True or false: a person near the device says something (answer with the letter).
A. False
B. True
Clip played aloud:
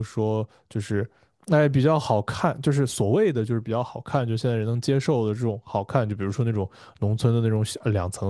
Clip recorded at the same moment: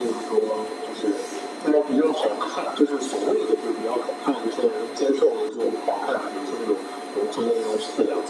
A